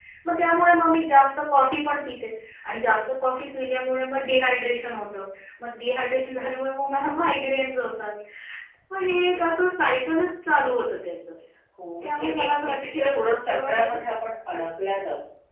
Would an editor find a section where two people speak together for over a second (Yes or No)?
Yes